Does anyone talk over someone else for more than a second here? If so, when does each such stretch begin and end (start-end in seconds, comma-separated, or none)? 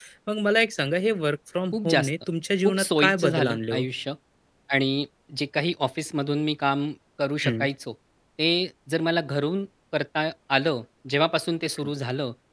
2.6-3.8